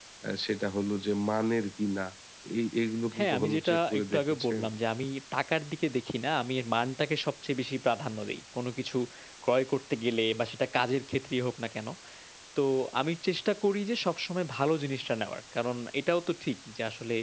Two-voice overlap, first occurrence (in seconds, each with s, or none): 3.2 s